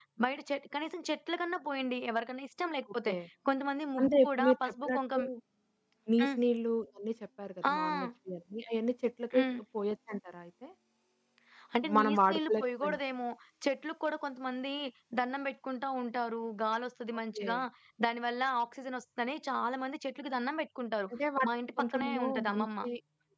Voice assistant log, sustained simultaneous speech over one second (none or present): present